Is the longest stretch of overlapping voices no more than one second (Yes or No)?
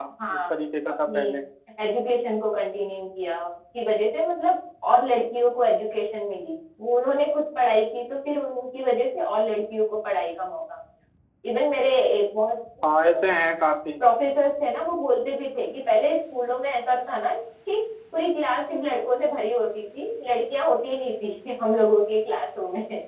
Yes